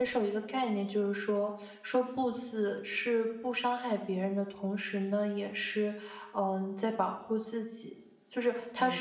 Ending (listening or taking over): taking over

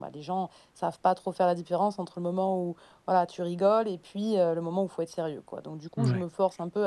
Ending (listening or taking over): listening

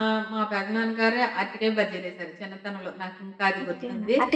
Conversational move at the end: taking over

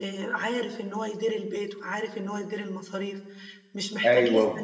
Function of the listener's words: taking over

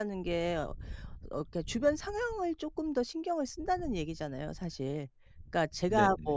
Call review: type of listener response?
listening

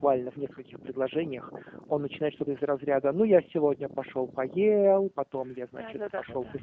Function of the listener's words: taking over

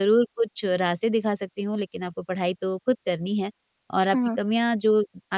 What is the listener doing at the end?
listening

